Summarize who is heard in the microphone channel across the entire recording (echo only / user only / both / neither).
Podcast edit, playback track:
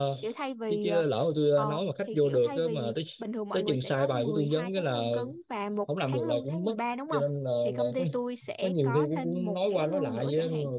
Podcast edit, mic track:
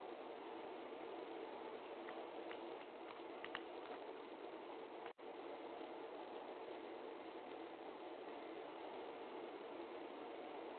neither